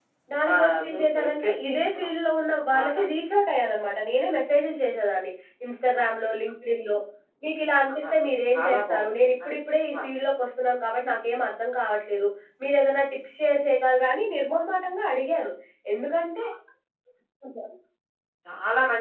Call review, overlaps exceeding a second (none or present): present